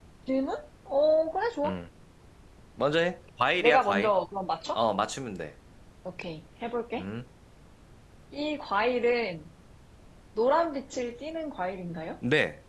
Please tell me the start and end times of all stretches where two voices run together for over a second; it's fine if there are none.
none

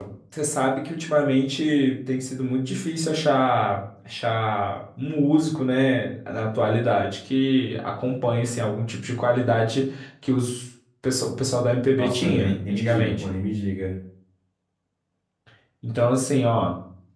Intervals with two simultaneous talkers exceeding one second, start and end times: 12.0-13.2

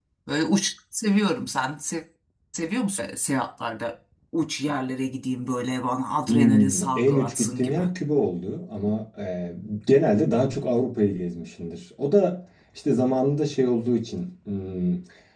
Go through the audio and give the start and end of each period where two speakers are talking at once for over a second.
6.3-7.8

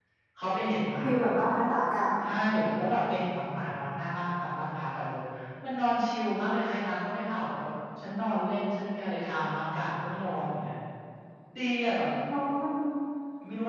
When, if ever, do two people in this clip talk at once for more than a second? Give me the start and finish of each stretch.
none

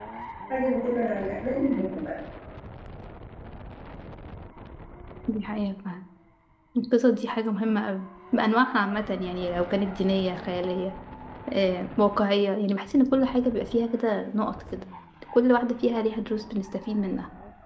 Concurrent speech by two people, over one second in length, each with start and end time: none

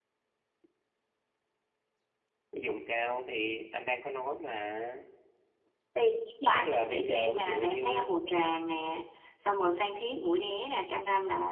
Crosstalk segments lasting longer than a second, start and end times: 6.5-8.1

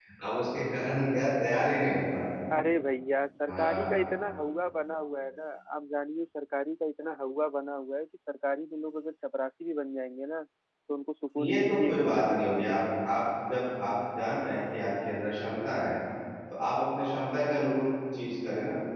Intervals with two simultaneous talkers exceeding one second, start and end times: 11.4-12.8

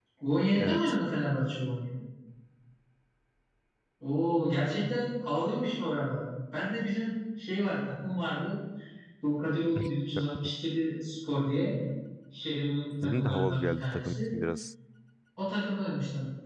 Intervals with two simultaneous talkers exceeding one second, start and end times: 13.0-14.3

